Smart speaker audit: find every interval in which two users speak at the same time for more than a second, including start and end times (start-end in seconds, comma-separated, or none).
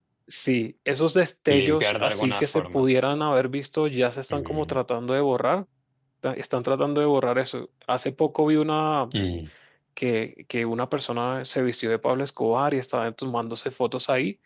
1.5-2.8